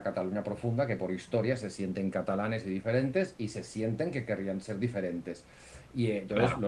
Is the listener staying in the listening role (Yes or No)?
Yes